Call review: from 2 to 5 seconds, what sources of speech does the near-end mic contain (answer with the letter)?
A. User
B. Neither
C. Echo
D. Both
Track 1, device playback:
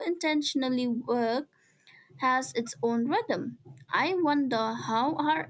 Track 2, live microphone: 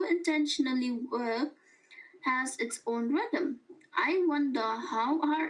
C